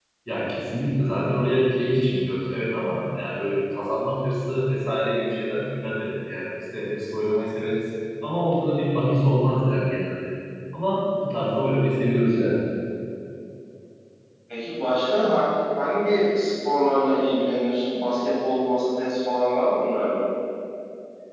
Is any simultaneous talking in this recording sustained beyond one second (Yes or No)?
No